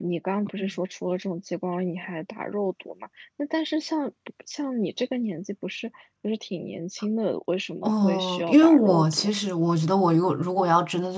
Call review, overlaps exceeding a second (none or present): present